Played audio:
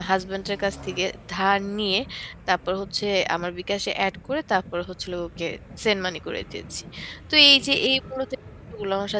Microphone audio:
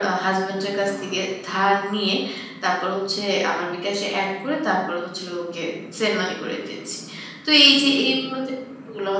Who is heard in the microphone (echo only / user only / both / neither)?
echo only